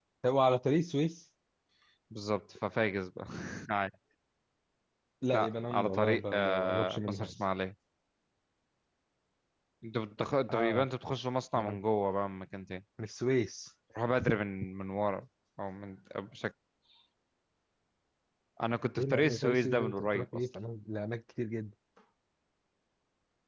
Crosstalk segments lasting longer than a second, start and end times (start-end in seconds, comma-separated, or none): 5.3-7.3, 19.0-20.4